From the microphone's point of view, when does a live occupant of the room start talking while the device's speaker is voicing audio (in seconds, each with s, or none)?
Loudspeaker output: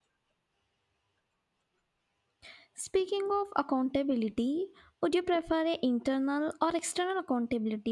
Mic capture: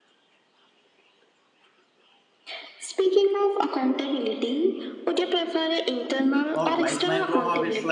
6.5 s